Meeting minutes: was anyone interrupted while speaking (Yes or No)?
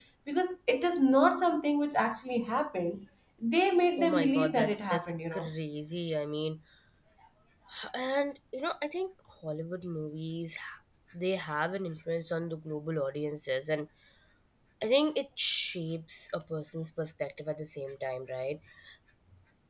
Yes